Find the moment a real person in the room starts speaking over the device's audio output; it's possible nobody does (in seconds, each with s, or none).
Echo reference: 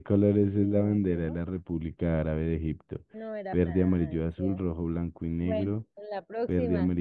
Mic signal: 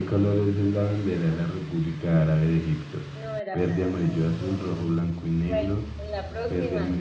none